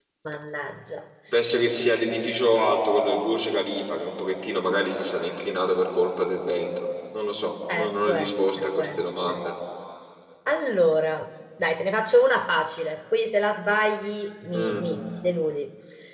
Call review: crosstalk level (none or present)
present